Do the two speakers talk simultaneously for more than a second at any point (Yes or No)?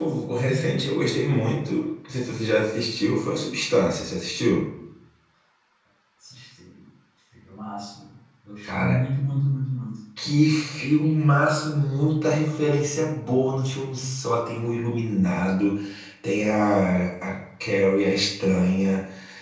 No